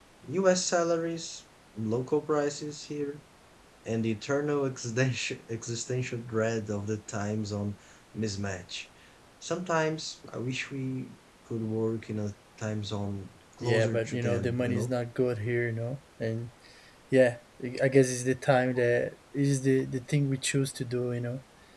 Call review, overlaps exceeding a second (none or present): present